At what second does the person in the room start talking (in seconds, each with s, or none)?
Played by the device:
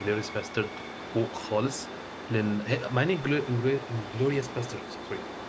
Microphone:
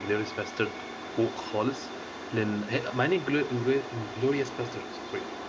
none